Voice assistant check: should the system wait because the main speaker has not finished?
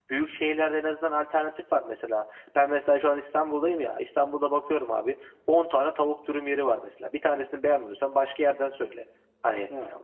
Yes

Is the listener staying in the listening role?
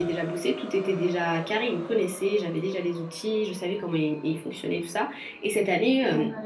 Yes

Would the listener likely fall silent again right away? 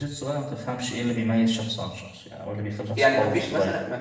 No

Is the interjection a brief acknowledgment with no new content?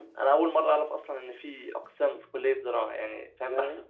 Yes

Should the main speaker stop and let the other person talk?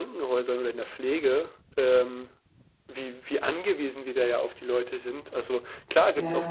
No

